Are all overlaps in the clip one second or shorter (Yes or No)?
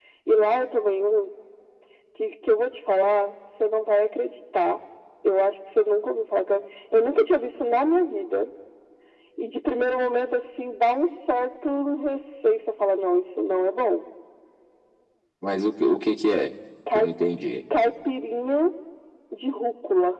Yes